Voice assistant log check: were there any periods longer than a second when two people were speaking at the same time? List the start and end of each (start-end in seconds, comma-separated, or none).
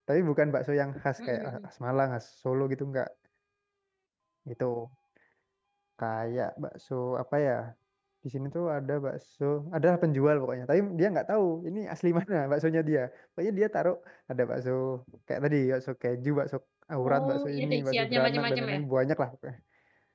17.0-18.8